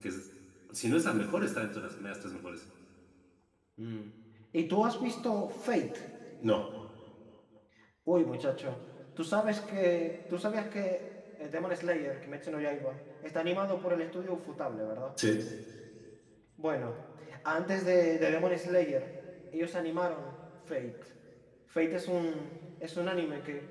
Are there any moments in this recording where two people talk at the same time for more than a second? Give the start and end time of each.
none

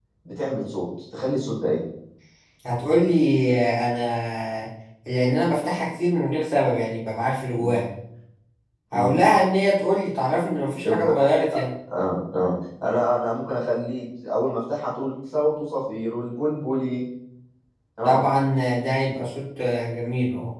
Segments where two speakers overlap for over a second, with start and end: none

